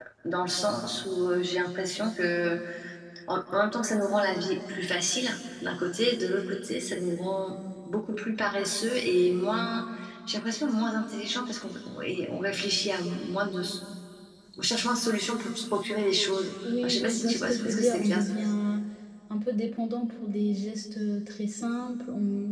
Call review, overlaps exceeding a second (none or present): present